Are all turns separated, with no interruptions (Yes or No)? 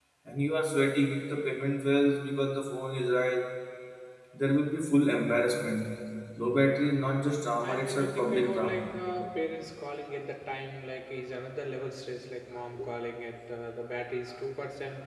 No